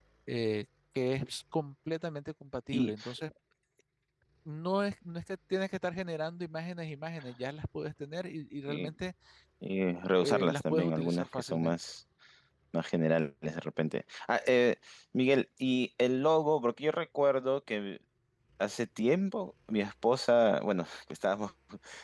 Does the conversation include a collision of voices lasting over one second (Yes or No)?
Yes